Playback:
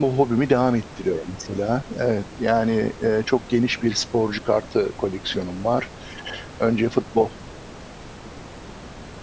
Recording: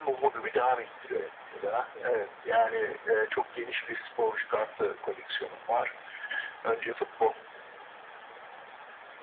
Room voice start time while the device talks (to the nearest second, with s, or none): none